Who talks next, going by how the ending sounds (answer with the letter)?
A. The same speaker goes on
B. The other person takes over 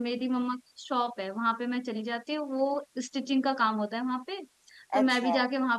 A